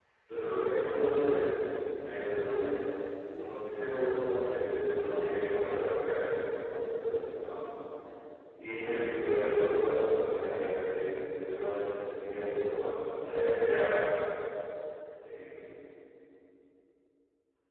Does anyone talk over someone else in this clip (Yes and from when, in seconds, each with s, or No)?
No